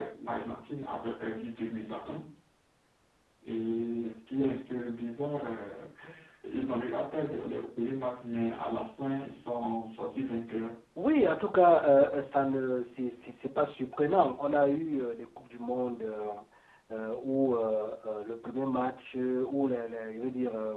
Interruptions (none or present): none